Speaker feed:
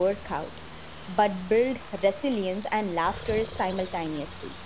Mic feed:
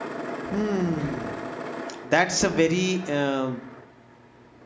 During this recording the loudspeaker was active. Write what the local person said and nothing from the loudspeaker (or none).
Hmm. That's a very um,